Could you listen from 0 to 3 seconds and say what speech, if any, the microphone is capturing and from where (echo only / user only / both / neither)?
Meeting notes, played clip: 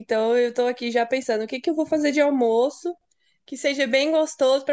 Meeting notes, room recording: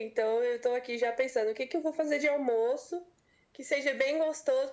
echo only